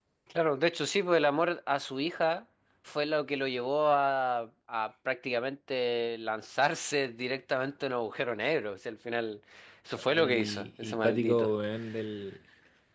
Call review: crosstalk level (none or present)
present